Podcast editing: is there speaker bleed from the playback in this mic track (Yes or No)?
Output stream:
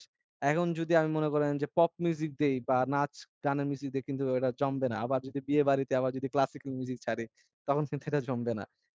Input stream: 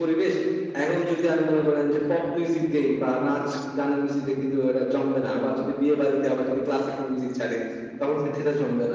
Yes